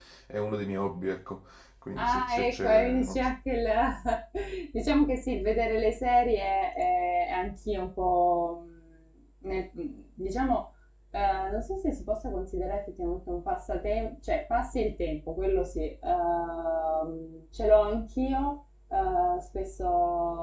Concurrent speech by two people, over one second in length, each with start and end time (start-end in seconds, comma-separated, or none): 2.0-3.3